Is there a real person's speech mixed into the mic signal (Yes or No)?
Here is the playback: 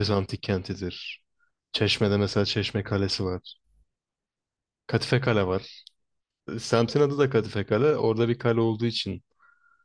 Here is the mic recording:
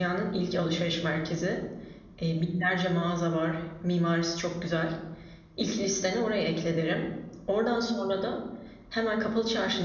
Yes